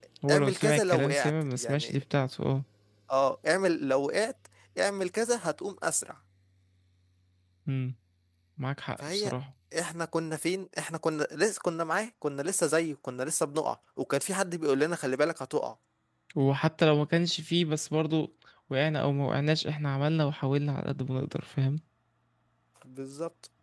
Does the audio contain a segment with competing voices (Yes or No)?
Yes